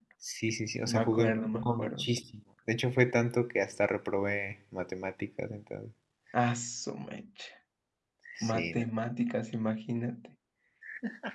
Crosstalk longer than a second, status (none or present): present